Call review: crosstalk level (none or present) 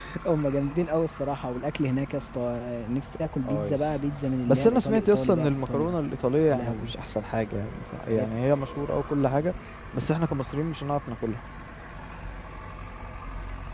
present